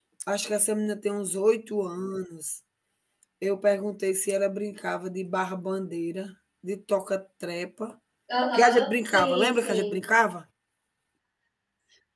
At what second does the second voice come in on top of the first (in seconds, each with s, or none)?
8.5 s